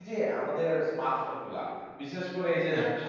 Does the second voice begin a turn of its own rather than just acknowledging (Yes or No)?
No